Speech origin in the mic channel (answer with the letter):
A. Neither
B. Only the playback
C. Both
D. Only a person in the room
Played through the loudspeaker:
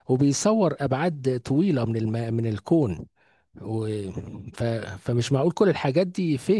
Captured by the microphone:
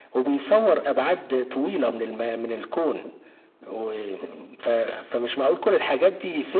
B